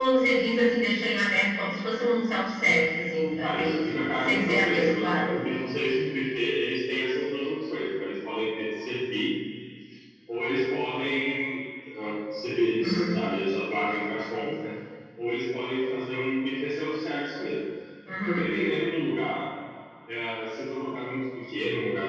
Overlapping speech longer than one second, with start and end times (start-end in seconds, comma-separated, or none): 3.4-5.3